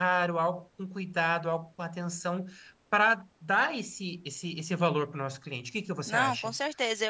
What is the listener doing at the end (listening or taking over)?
taking over